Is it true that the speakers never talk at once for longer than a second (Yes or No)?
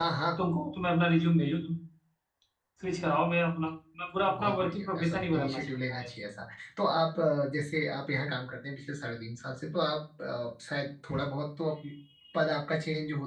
No